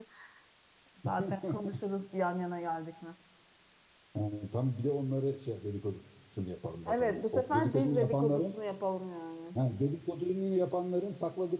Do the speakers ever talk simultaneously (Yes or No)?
Yes